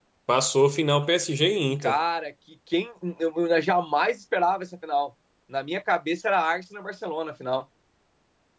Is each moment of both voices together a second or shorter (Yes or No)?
Yes